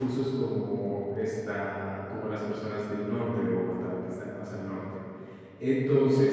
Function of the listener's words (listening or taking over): listening